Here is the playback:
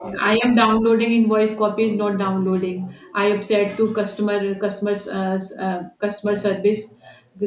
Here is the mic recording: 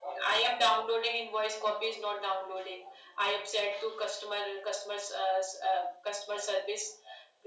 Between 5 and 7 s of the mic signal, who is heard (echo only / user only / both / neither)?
echo only